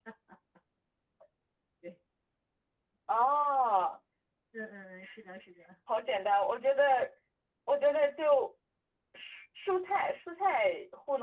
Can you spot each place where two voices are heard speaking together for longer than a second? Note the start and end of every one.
none

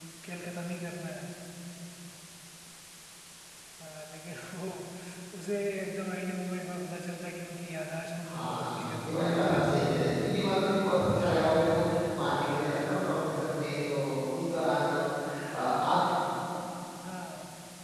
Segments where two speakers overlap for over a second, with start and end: 8.3-10.0

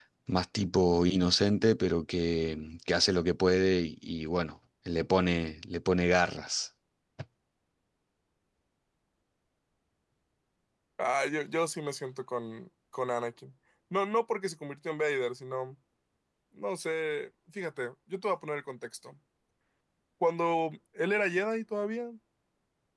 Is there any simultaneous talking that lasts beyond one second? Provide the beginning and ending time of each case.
none

